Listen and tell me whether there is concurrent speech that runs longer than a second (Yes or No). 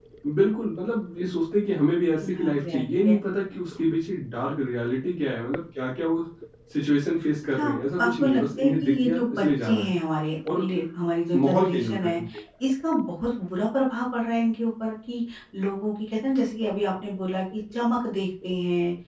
Yes